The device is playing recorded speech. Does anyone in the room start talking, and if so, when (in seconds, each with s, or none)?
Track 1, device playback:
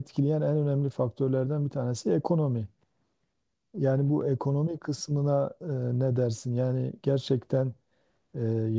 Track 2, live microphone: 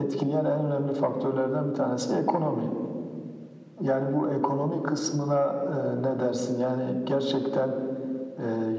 none